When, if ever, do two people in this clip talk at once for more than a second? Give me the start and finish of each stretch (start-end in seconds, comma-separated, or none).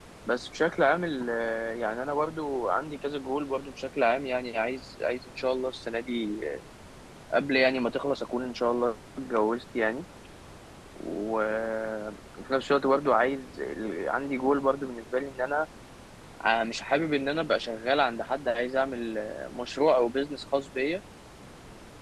none